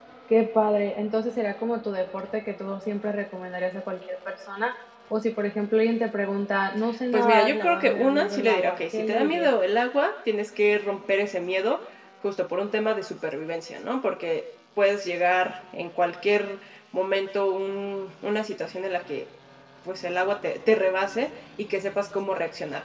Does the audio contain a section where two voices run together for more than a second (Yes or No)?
Yes